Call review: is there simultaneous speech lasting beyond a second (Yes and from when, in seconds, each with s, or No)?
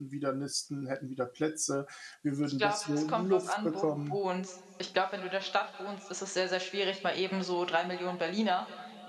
Yes, from 2.4 s